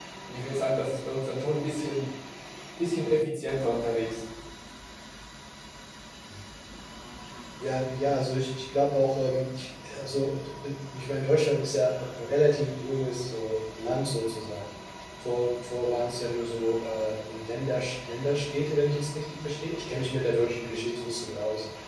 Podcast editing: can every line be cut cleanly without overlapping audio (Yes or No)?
Yes